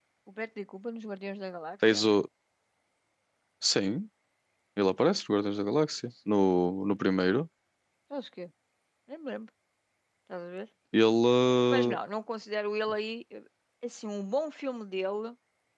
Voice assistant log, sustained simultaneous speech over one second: none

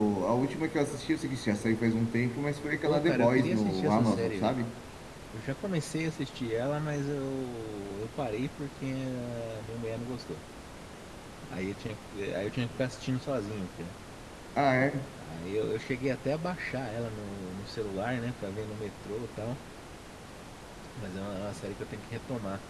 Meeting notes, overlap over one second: present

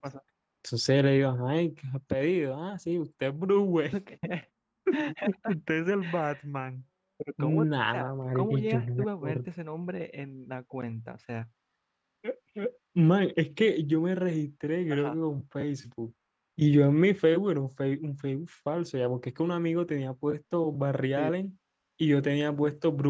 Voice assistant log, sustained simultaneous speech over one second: present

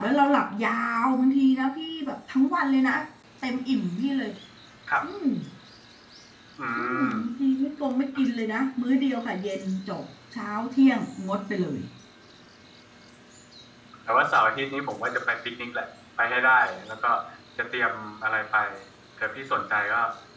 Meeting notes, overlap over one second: none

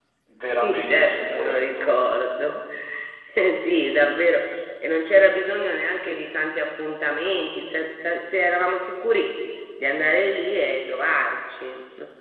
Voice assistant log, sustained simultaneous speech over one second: present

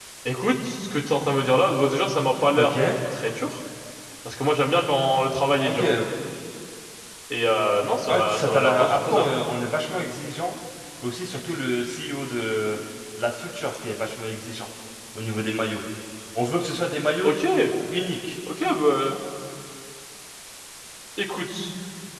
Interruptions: present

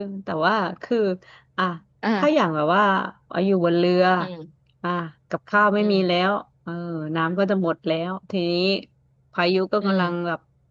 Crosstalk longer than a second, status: none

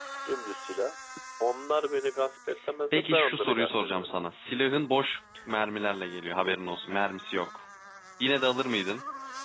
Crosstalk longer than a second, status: present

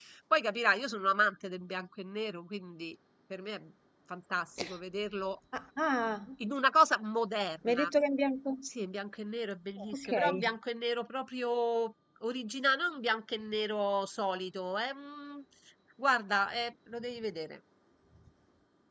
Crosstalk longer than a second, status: none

